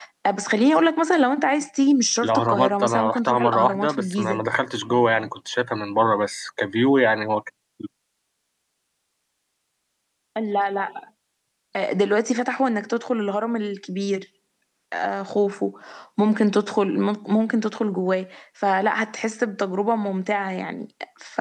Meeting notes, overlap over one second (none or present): present